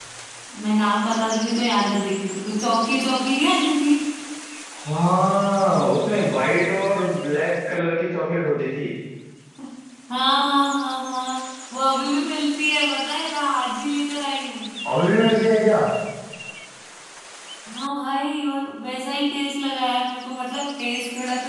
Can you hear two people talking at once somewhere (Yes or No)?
No